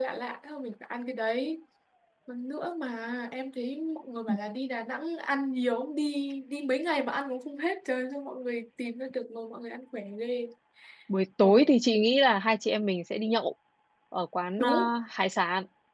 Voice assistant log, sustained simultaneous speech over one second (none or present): none